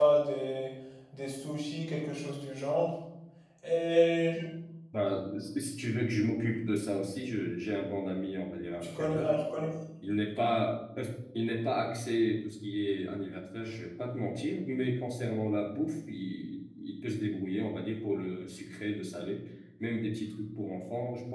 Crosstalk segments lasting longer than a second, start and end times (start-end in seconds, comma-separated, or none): none